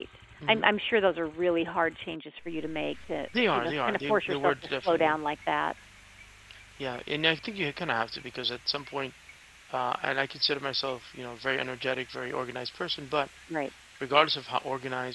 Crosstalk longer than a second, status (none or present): present